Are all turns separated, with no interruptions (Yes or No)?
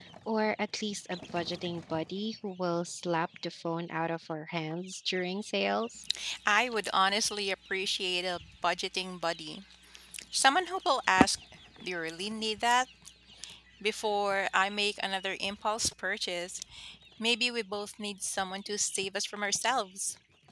Yes